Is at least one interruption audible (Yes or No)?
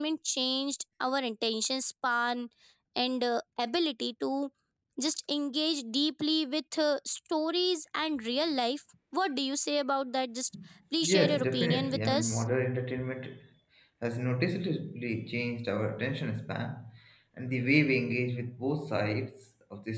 Yes